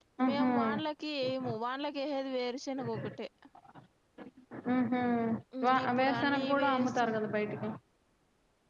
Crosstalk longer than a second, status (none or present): present